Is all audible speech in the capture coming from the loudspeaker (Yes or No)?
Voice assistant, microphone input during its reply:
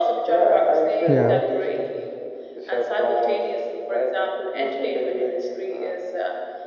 No